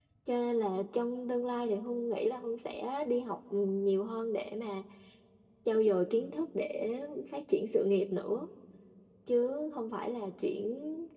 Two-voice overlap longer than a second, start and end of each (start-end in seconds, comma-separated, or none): none